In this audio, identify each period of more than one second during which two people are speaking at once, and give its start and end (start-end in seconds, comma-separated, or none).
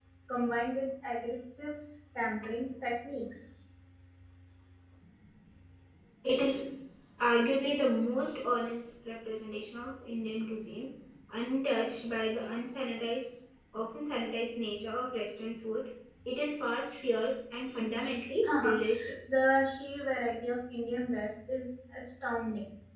none